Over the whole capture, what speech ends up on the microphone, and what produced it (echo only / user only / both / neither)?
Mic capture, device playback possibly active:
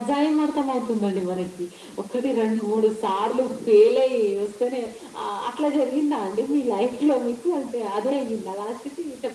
echo only